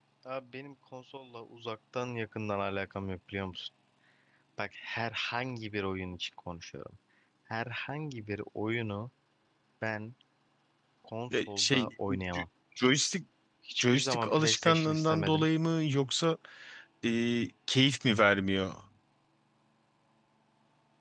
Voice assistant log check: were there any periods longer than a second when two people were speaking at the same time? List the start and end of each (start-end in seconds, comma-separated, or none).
13.8-15.5